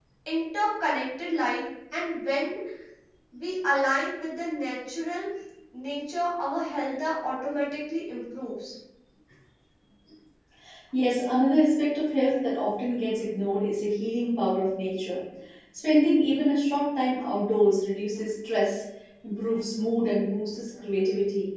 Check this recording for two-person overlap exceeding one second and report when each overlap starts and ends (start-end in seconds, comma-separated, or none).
none